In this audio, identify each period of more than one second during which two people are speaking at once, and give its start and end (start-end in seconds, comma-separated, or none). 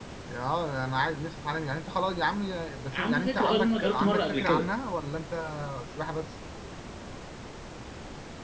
2.9-4.7